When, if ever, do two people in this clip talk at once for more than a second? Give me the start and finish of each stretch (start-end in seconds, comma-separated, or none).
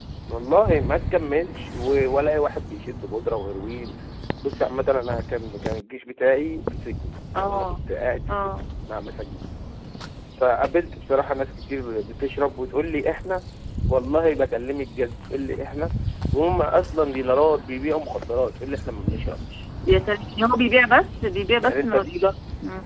none